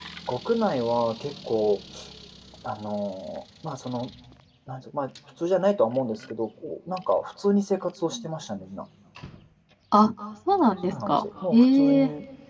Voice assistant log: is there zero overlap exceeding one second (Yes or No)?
No